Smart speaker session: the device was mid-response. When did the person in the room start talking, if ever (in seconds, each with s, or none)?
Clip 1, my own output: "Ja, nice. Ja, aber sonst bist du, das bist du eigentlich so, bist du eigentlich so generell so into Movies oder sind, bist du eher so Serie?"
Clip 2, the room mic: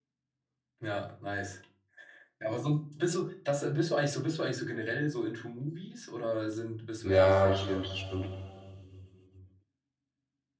7.0 s